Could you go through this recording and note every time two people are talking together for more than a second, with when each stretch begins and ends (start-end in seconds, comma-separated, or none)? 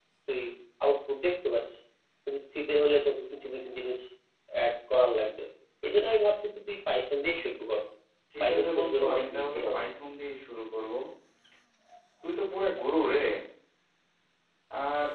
8.4-9.8